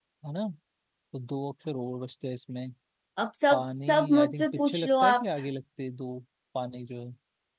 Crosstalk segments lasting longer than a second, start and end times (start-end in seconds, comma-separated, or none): 3.5-5.2